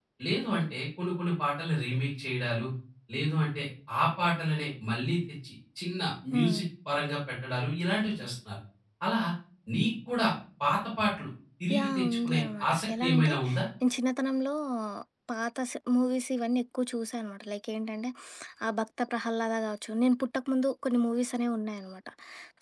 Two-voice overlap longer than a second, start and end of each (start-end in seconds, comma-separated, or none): 11.8-13.3